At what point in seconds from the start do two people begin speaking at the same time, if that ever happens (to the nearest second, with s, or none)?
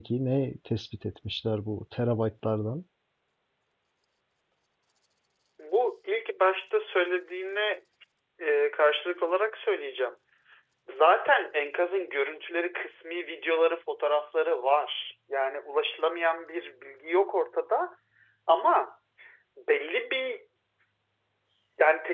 none